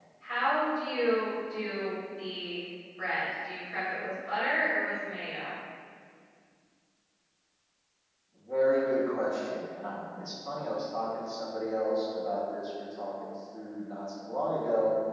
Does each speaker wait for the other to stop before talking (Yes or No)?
Yes